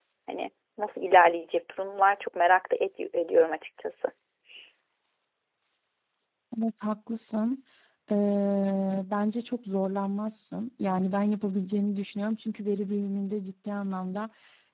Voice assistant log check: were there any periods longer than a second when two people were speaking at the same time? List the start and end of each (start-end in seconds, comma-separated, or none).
none